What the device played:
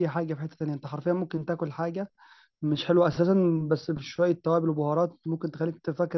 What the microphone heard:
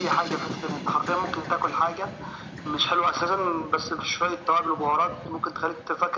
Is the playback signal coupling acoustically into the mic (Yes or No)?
Yes